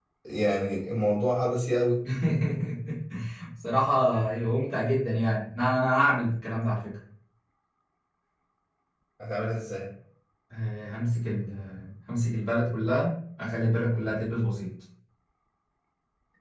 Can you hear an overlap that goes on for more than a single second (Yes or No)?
No